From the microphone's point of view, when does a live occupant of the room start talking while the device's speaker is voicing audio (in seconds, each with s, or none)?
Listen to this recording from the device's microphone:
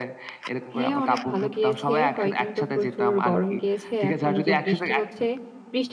0.7 s